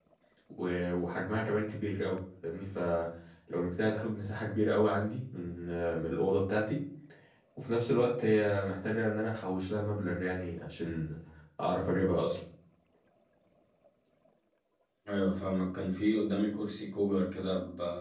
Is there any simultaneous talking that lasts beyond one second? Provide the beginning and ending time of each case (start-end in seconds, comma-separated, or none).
none